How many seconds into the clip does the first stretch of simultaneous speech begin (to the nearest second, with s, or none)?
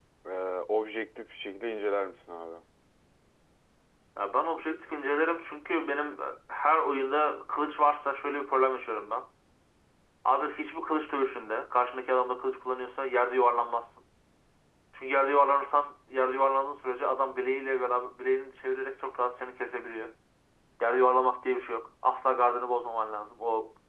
none